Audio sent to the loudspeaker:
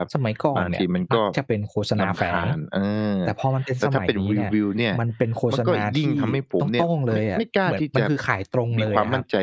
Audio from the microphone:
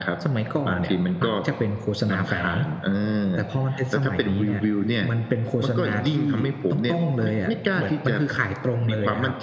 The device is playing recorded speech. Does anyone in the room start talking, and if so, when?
none

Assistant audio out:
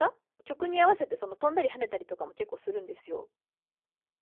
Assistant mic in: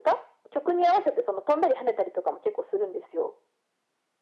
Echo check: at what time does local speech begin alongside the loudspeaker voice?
none

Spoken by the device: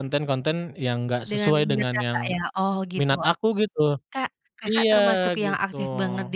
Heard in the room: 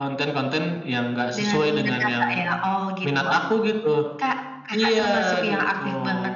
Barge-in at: none

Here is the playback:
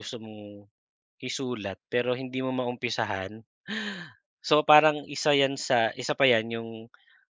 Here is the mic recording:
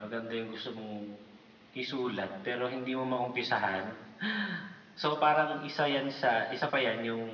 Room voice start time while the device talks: none

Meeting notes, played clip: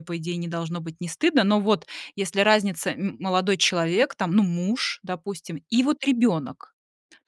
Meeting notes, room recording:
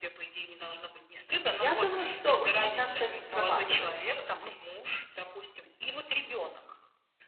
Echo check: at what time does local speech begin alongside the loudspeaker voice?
1.5 s

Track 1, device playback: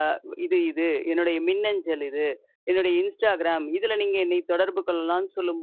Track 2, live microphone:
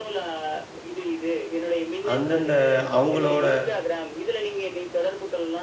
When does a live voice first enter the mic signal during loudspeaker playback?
2.1 s

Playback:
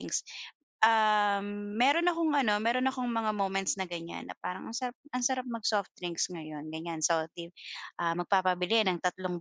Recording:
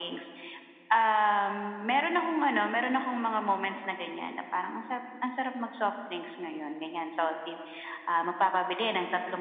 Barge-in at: none

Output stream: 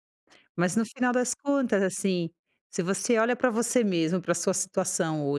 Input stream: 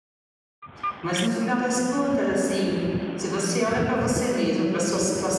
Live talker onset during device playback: none

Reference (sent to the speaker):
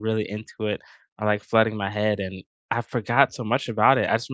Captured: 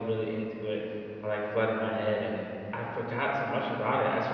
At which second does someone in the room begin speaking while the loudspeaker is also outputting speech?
none

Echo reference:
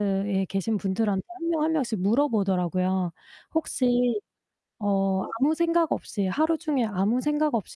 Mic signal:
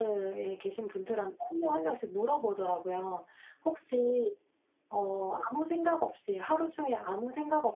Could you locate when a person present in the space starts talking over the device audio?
none

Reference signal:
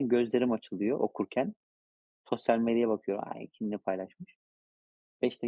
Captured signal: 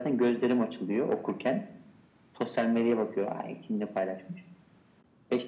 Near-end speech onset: none

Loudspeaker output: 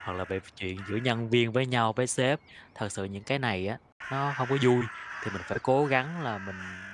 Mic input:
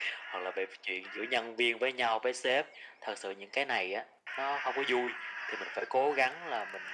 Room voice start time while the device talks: none

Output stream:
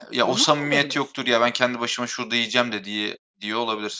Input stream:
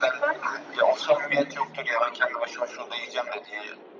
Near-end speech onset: 1.0 s

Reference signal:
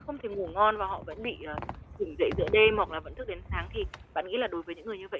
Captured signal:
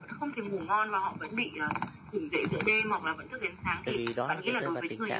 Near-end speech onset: 3.8 s

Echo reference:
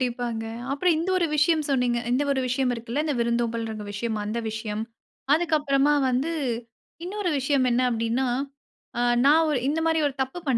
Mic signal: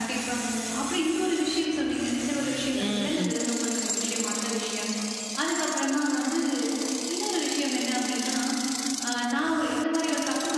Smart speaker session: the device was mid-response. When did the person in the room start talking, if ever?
2.7 s

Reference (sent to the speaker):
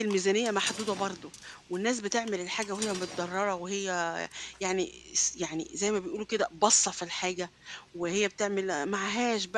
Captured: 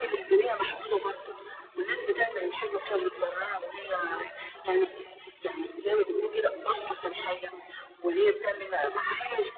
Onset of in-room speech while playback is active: none

